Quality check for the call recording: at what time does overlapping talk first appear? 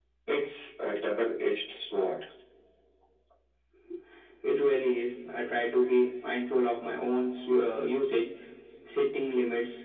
none

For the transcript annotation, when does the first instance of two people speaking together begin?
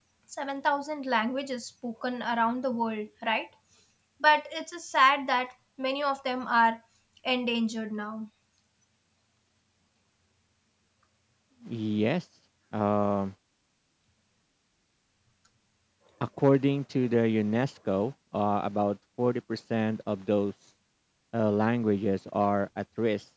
none

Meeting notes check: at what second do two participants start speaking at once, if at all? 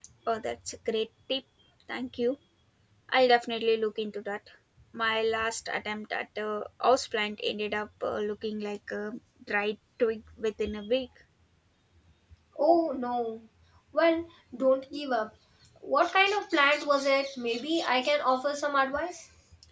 none

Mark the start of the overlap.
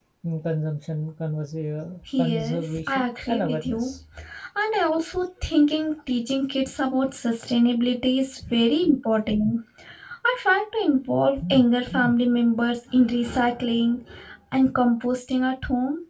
2.1 s

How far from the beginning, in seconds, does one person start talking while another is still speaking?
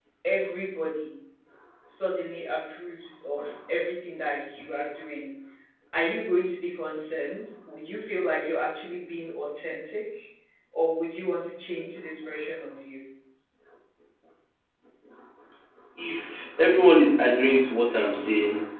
none

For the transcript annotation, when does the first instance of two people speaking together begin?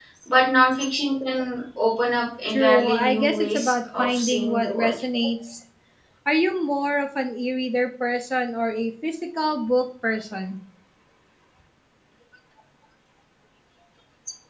2.5 s

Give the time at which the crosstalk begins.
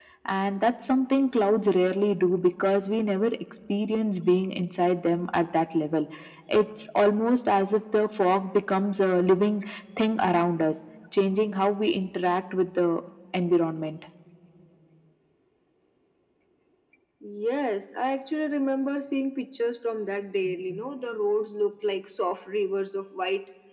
none

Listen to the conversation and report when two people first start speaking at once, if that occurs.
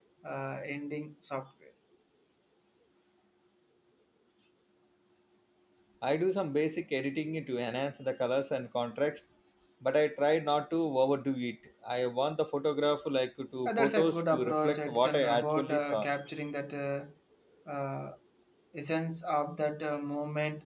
13.7 s

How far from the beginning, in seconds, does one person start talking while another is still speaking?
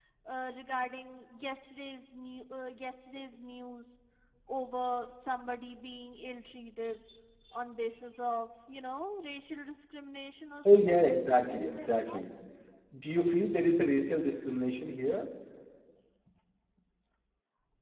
10.6 s

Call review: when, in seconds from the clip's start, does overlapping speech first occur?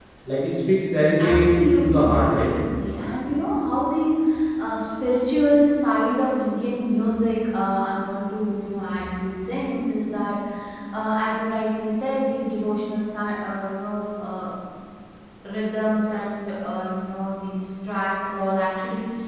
1.2 s

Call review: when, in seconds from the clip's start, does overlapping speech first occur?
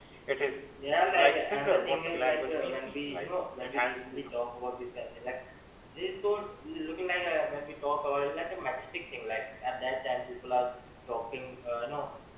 1.2 s

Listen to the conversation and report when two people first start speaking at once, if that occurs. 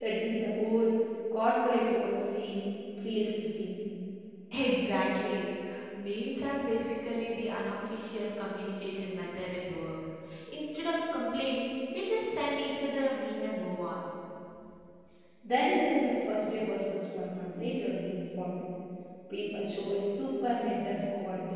none

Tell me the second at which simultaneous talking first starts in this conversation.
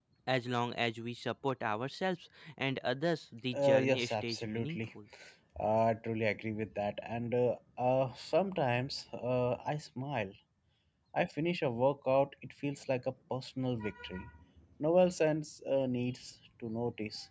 3.5 s

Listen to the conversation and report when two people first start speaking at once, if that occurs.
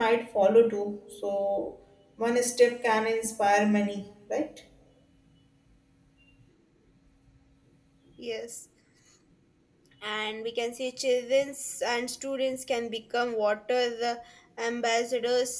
none

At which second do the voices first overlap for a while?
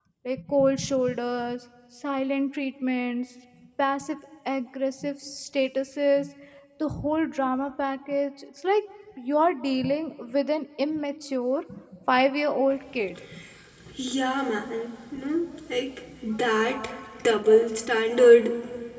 none

